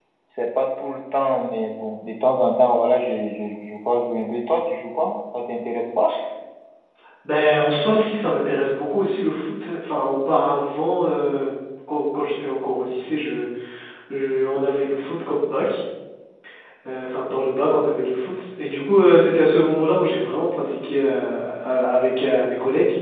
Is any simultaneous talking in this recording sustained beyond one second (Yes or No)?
No